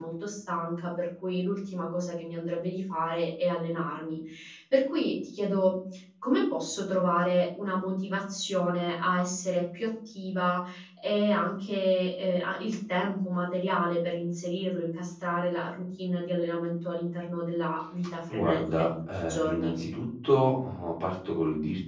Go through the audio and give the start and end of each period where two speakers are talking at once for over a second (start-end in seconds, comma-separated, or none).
18.3-19.7